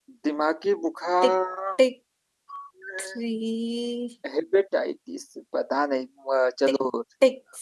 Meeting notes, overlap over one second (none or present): none